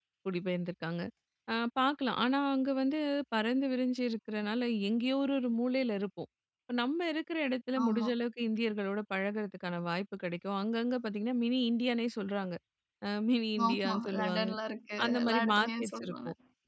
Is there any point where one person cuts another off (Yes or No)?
Yes